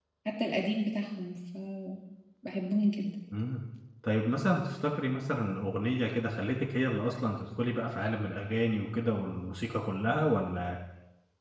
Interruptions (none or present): none